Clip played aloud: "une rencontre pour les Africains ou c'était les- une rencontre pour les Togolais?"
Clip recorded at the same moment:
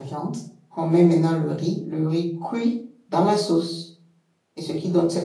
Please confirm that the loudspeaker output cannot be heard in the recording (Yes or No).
Yes